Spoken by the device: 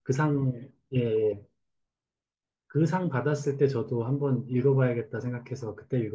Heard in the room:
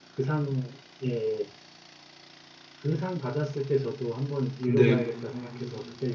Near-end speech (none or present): present